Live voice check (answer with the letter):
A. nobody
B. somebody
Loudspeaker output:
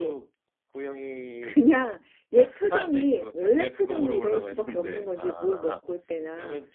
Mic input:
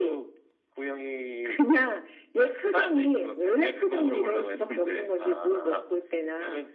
A